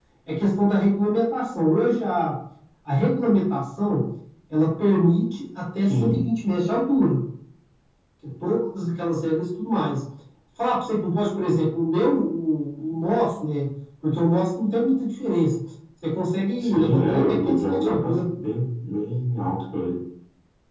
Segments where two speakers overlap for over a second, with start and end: 16.6-18.2

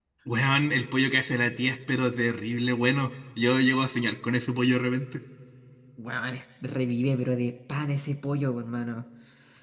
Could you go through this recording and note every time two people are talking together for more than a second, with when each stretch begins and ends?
none

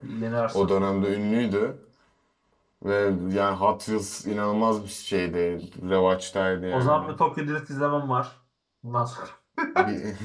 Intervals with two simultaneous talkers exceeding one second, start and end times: none

